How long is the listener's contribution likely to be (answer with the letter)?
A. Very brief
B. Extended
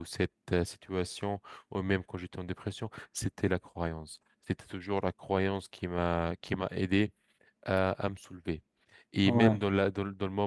A